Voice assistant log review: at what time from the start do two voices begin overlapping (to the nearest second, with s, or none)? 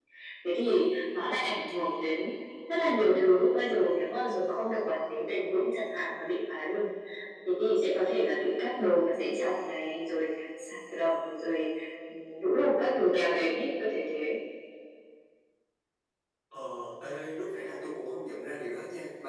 none